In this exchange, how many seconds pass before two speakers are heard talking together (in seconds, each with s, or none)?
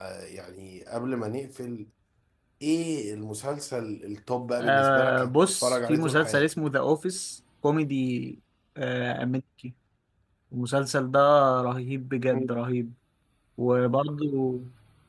4.6 s